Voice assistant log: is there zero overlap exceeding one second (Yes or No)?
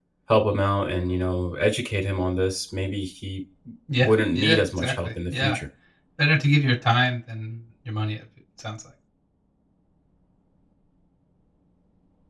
No